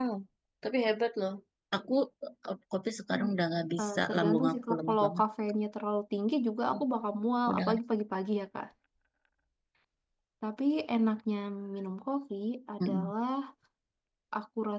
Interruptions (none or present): present